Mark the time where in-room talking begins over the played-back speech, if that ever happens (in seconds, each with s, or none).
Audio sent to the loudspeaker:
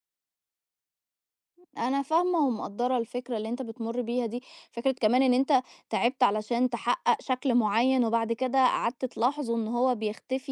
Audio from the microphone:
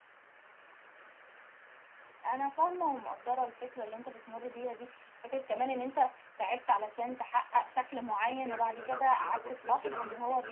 8.4 s